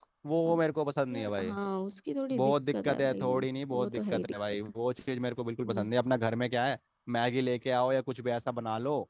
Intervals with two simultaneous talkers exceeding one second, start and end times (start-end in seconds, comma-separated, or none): 2.4-4.6